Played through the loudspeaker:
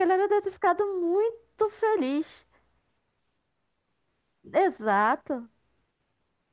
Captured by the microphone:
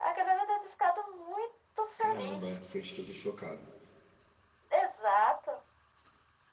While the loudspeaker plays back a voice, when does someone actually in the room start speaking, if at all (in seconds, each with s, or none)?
2.0 s